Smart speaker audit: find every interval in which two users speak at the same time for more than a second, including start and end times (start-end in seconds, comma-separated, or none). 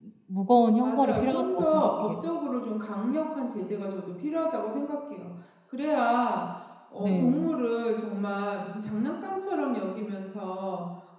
0.8-2.3